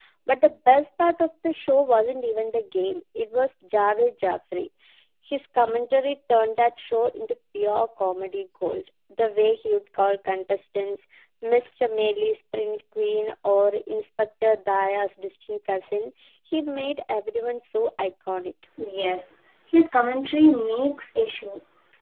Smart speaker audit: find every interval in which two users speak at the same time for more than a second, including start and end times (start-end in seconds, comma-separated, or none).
none